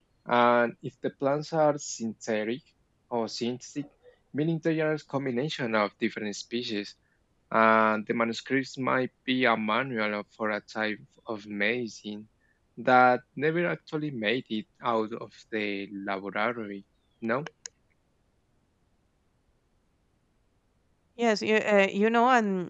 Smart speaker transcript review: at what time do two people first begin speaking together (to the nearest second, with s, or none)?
none